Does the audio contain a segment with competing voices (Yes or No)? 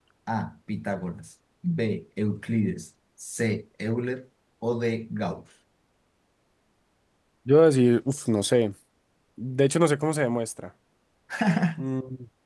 No